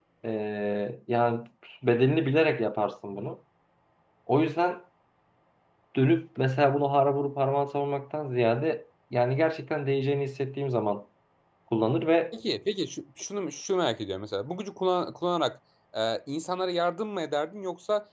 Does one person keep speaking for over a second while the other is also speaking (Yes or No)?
No